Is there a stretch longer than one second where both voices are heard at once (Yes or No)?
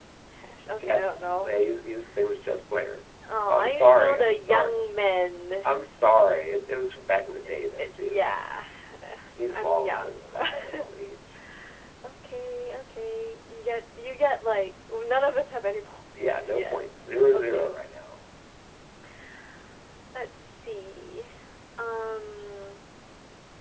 Yes